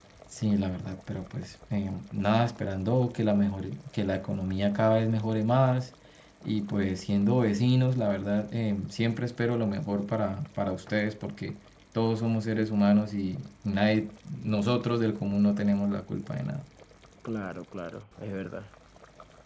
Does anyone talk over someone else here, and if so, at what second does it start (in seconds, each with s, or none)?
none